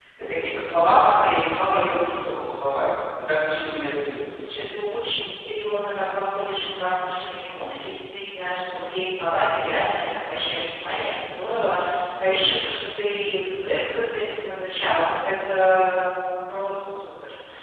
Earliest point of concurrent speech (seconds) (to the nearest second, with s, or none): none